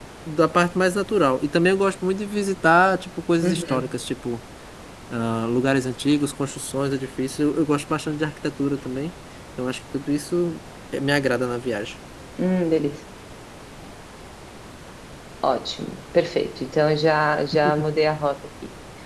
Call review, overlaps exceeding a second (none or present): none